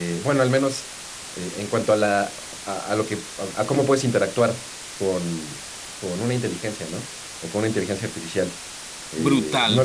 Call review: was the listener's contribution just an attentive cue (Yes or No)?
No